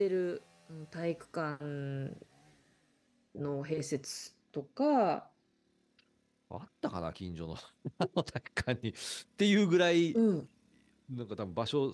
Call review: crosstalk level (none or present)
none